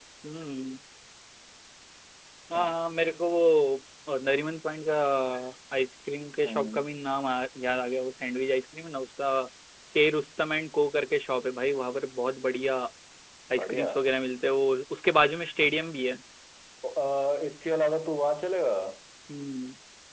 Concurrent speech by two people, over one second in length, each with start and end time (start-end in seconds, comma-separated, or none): none